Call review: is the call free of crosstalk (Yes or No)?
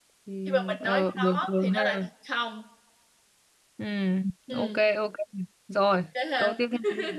No